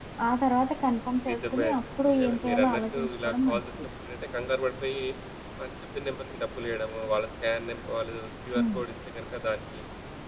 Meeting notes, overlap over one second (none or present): present